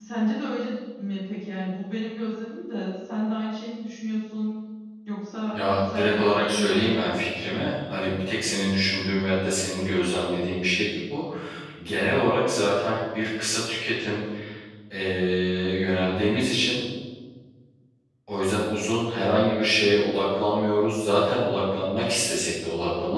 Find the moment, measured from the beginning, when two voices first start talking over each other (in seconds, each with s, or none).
5.5 s